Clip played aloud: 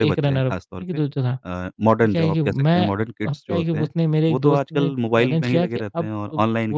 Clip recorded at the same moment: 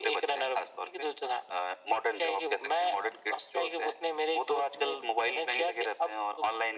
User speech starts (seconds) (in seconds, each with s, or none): none